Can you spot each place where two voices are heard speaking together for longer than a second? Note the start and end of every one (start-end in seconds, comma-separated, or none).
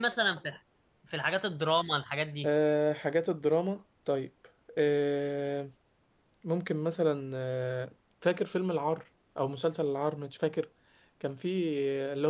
none